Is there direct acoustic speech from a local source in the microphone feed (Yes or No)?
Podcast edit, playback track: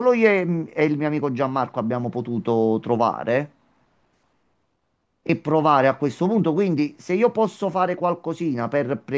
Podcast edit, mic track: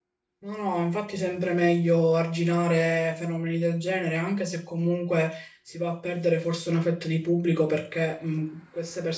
Yes